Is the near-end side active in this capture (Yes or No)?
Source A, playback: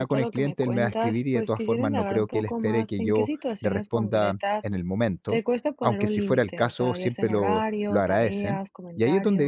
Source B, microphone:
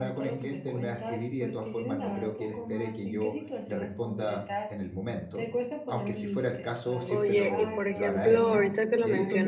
Yes